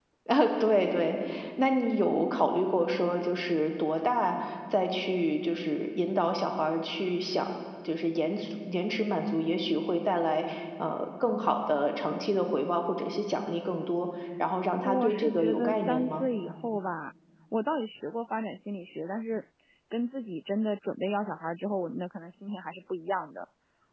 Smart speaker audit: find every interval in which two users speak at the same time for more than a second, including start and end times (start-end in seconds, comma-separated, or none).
14.8-16.2